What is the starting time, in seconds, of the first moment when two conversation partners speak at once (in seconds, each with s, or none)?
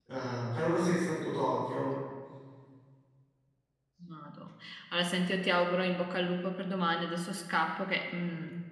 none